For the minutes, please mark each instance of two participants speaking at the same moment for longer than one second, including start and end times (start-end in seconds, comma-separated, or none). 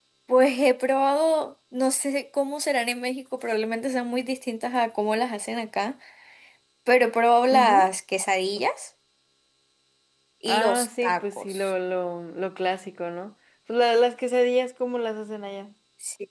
10.5-11.7